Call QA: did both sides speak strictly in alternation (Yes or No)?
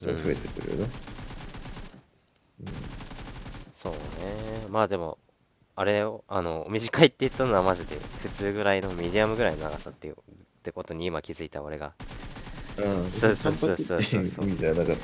No